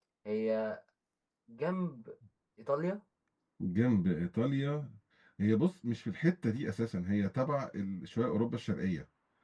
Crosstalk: none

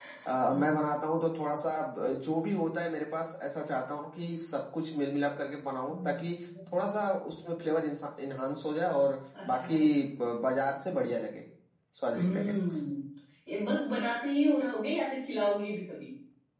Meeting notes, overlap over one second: none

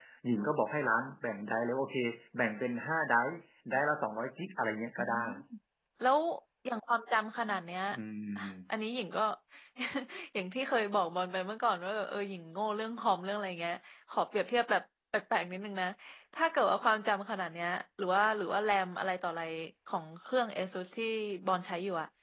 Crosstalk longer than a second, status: none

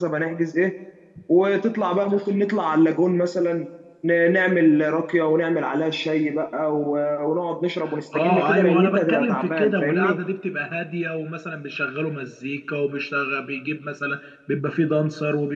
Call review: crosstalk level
present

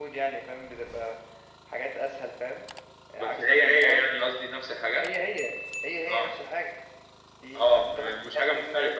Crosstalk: present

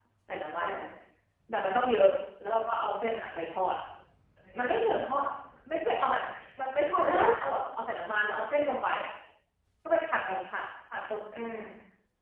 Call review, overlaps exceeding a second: none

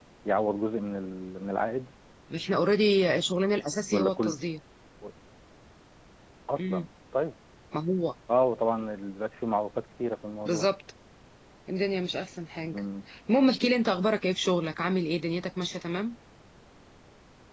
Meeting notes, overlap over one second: none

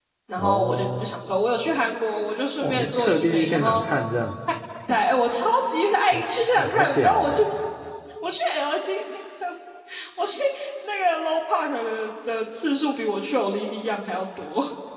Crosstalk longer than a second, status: present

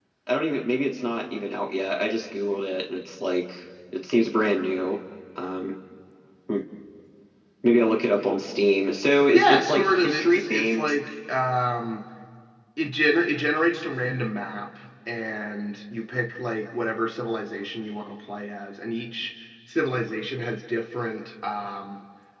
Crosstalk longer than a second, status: present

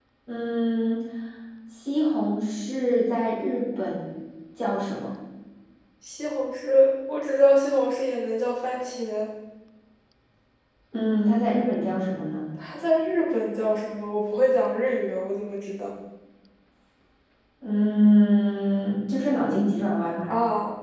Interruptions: none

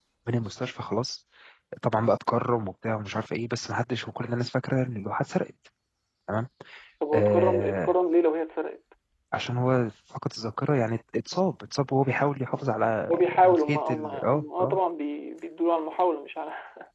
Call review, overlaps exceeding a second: present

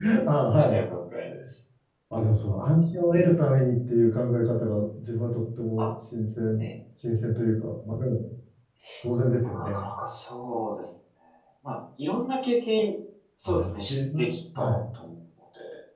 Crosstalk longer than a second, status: present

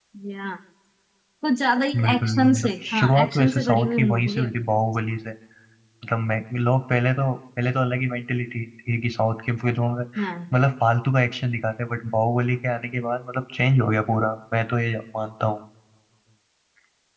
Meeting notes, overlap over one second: present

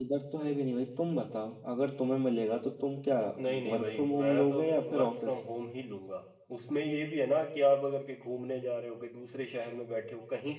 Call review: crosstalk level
present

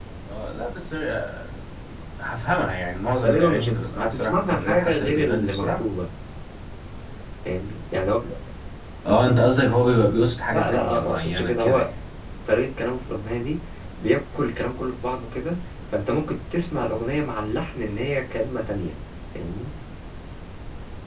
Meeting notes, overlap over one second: present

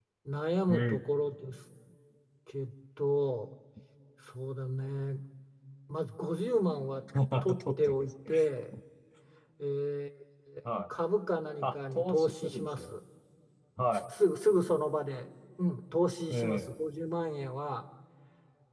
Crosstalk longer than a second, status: present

